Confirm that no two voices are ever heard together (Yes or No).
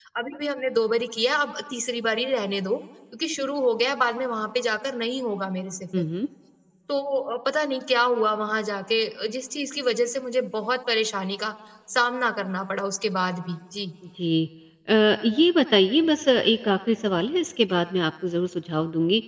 Yes